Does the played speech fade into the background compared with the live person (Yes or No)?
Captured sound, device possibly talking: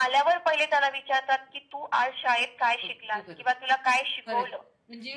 No